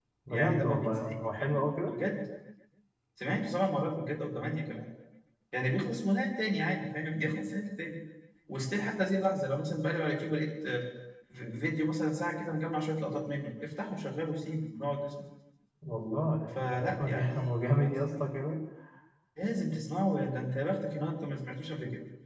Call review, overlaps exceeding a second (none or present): present